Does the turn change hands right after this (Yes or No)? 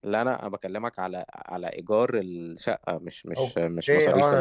Yes